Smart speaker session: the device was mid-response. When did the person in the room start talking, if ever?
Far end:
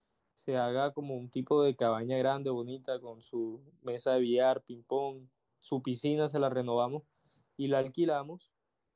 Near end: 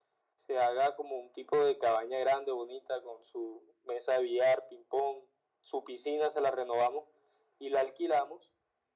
none

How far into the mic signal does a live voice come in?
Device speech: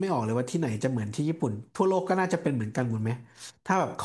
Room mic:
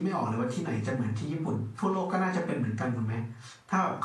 none

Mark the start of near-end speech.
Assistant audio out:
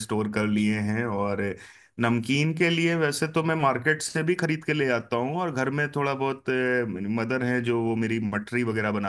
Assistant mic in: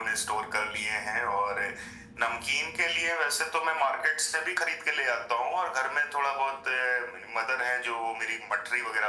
none

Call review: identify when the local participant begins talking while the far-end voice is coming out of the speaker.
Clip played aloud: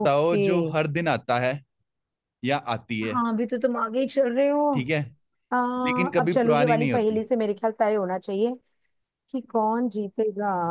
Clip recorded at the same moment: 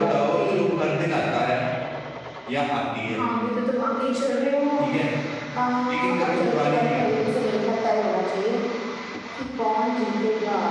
none

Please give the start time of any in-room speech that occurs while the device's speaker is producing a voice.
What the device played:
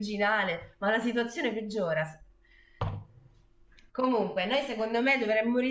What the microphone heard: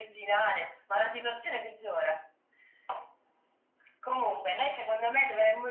none

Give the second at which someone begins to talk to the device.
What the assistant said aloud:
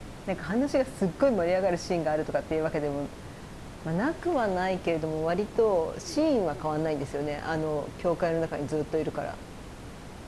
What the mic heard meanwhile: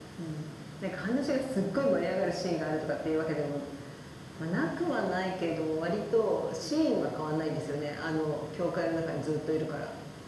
none

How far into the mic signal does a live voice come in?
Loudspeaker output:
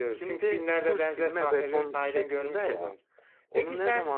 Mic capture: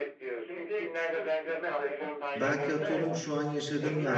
2.3 s

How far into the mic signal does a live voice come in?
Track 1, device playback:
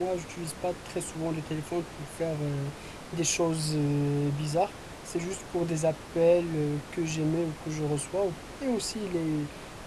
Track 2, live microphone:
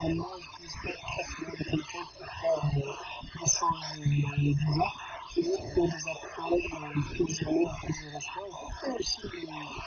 none

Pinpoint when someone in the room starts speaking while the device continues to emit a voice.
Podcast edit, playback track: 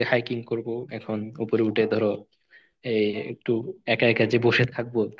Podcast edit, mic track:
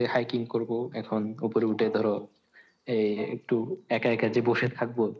none

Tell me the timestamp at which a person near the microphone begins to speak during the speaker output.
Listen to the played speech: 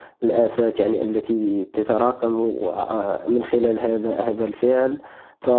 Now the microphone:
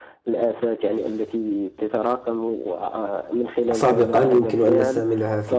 3.7 s

